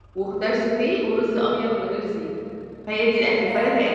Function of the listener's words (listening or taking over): taking over